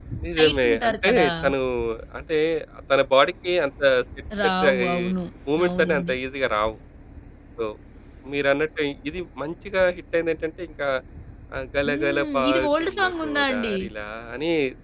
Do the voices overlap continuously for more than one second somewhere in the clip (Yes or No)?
Yes